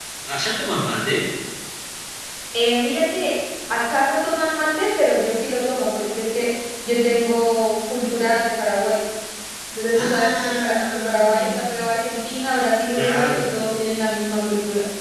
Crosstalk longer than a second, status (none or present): present